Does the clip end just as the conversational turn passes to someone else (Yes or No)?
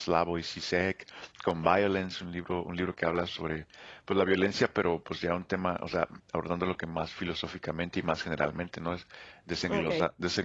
No